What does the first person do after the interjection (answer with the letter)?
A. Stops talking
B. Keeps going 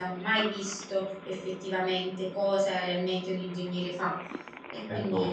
A